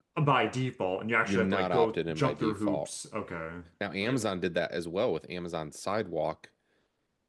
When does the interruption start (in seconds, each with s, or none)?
1.2 s